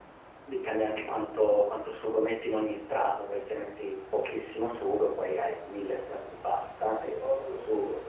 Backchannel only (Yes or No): No